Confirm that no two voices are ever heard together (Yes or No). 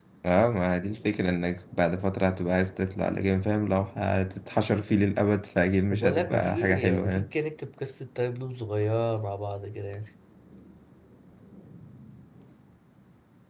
No